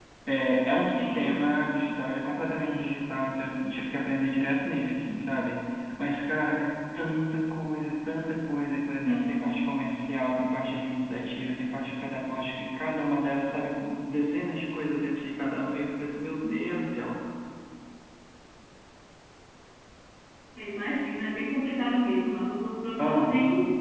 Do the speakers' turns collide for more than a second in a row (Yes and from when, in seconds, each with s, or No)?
No